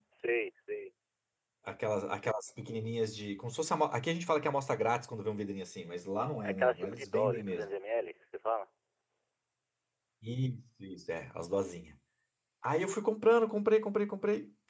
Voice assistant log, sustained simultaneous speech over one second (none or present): present